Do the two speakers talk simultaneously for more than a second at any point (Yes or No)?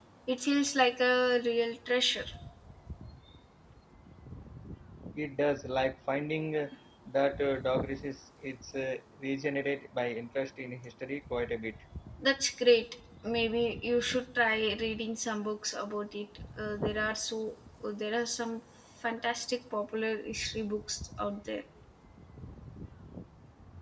No